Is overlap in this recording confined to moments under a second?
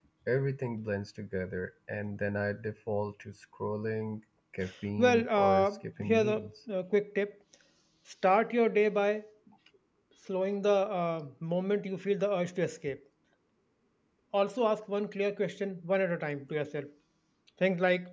No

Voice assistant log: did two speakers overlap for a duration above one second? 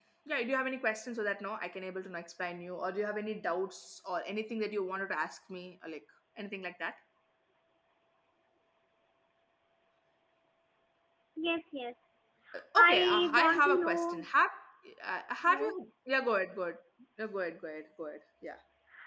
Yes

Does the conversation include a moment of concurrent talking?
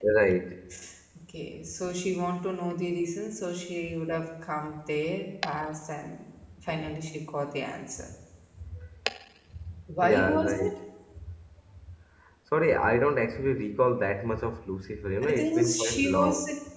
Yes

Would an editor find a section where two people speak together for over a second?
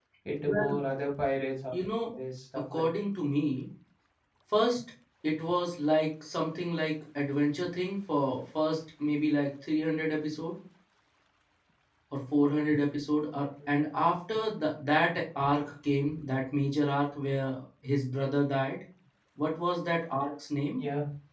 No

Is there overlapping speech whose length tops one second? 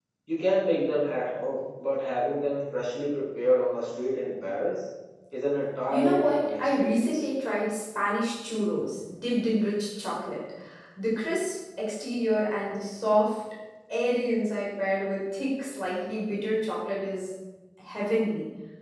Yes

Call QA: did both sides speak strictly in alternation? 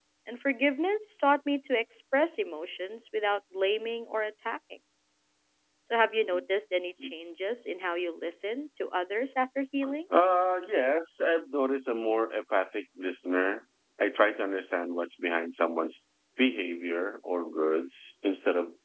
Yes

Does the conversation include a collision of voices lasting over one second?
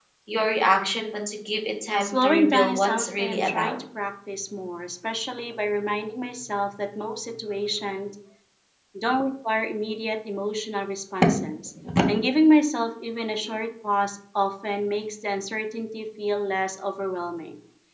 Yes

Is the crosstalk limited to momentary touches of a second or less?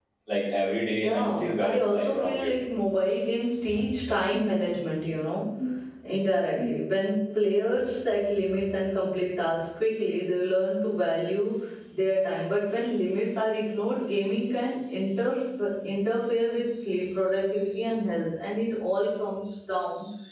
No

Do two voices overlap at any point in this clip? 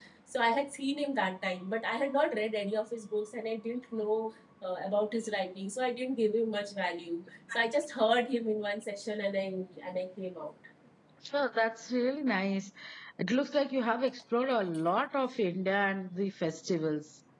No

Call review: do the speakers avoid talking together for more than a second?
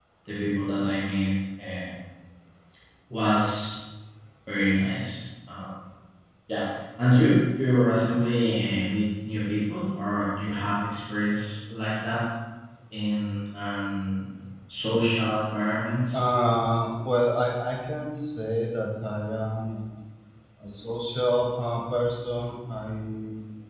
Yes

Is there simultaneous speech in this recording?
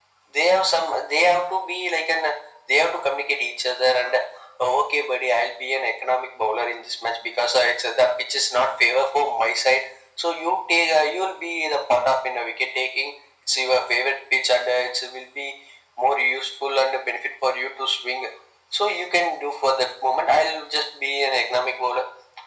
No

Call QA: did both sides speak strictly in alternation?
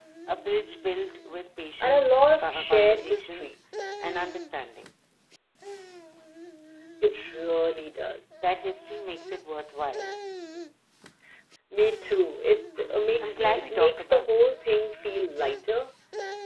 No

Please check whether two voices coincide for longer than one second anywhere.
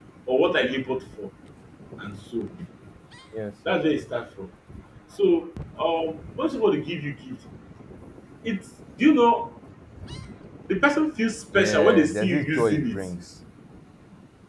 Yes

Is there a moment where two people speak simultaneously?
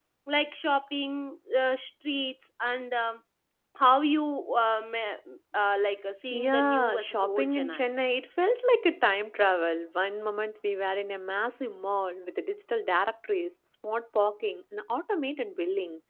Yes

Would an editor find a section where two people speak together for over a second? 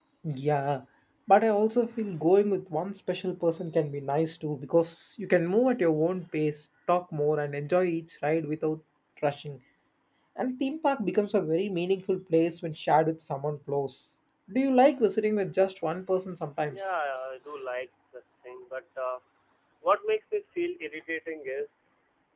No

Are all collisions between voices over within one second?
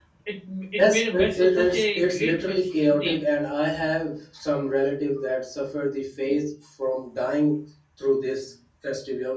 No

